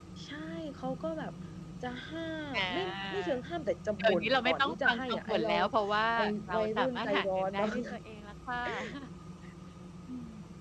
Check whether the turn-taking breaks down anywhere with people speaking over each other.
Yes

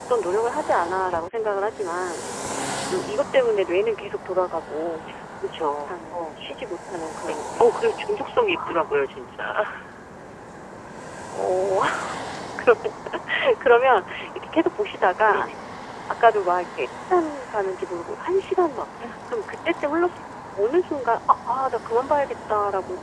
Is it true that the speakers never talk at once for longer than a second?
Yes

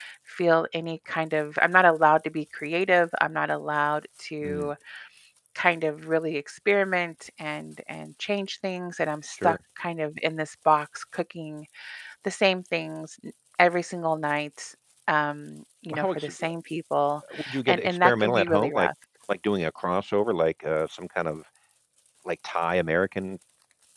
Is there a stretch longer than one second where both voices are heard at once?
Yes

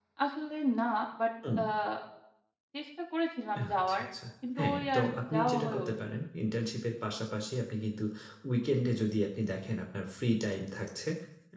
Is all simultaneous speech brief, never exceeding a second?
No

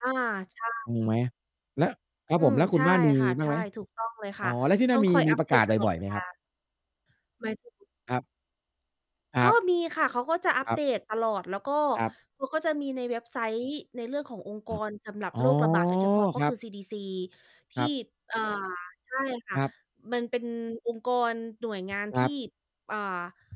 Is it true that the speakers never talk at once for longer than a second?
No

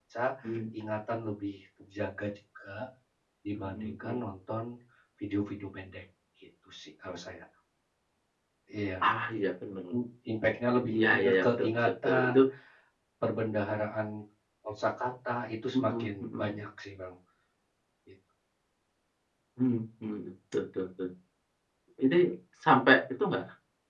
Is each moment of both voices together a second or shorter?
No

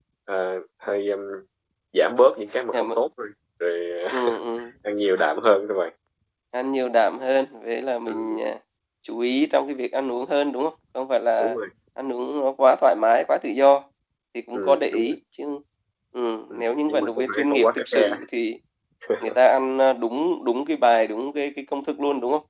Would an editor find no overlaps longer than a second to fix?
No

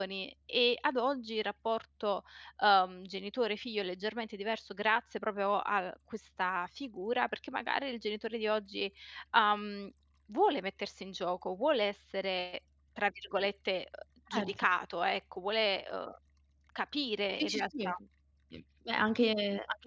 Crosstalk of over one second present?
No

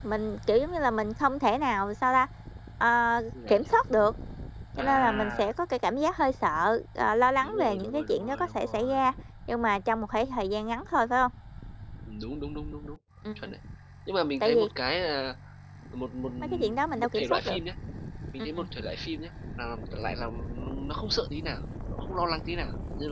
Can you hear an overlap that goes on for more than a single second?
Yes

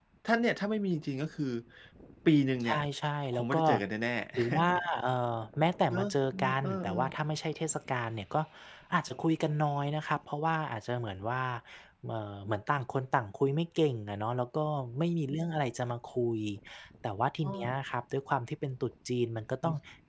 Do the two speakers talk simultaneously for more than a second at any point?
Yes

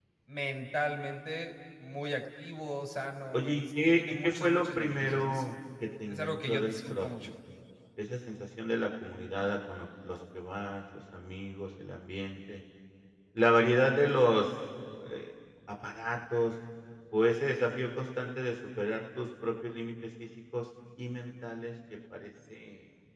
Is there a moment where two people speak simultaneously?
Yes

